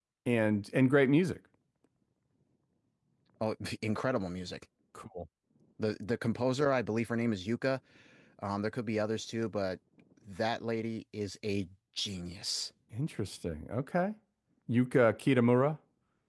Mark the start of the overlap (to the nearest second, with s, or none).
none